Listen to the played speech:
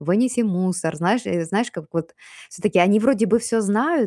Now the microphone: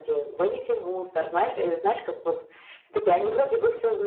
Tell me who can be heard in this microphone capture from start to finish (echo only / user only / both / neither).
echo only